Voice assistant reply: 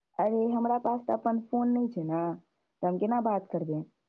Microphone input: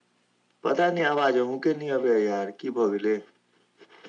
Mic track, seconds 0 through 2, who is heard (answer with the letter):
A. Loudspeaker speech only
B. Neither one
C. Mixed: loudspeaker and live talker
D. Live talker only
D